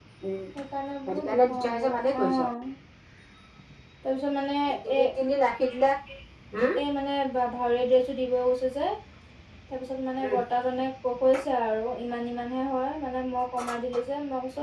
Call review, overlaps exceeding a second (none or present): present